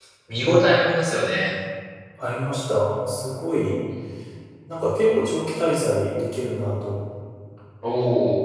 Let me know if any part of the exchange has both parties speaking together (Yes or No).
No